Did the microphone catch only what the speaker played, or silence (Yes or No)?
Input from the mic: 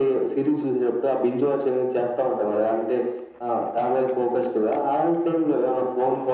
Yes